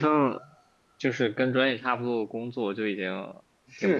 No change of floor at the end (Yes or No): No